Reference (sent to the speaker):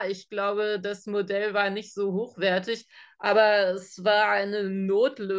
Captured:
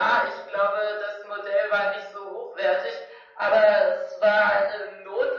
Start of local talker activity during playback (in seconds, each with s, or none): none